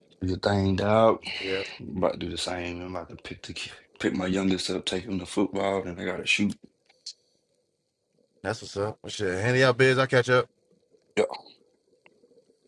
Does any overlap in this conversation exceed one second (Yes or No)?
No